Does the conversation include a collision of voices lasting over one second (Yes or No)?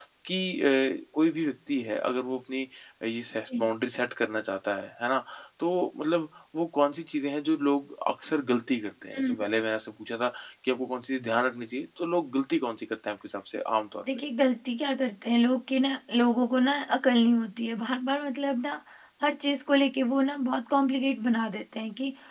No